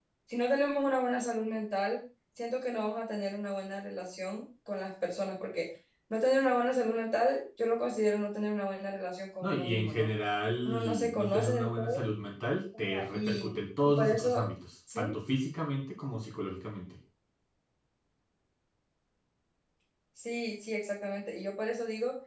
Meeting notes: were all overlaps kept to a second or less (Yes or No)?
No